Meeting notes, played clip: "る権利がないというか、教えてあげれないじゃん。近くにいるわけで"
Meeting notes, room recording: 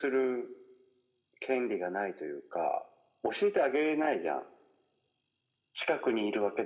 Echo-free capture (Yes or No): No